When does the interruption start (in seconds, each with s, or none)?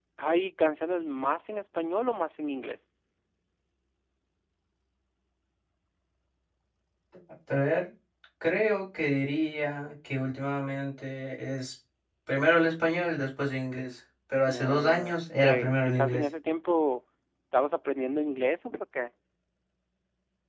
14.5 s